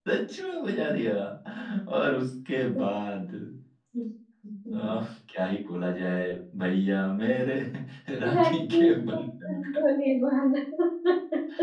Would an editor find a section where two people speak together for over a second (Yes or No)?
Yes